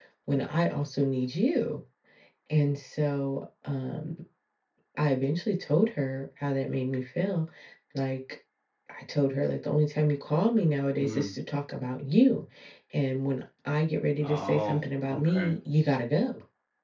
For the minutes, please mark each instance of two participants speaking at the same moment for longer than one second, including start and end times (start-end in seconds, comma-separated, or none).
14.2-15.5